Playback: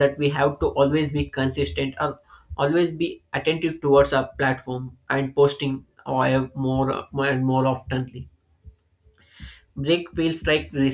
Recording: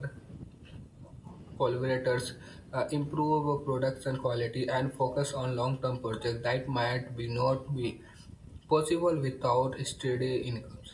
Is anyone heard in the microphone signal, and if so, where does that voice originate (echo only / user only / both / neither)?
user only